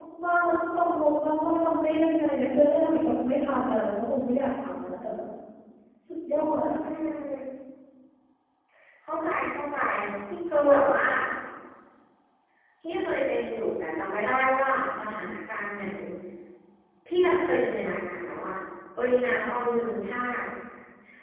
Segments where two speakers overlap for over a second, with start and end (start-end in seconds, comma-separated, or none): none